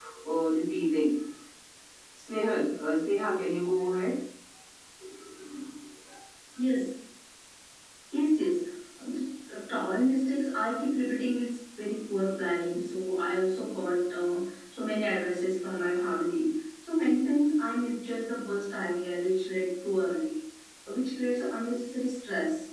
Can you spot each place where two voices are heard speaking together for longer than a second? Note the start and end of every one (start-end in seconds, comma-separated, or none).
none